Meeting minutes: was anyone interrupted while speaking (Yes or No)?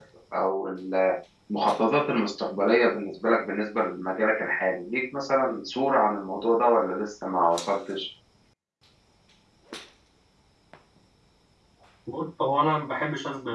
No